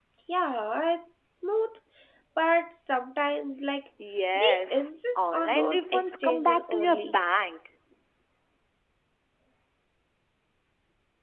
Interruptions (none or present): present